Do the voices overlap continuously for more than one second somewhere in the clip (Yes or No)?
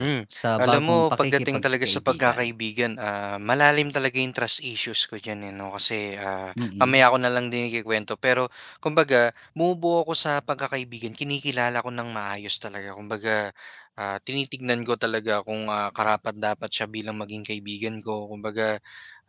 Yes